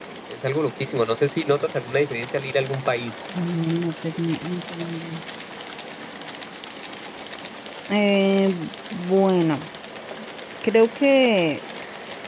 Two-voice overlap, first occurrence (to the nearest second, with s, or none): none